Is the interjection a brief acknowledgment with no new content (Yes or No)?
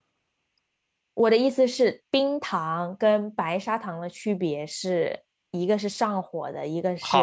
No